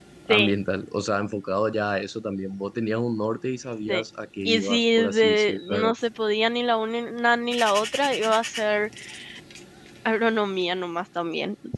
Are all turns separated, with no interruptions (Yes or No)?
No